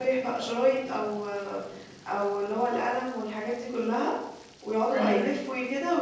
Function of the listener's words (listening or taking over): listening